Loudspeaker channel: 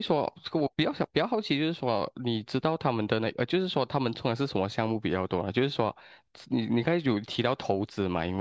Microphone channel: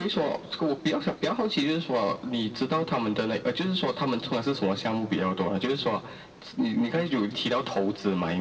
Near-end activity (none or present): none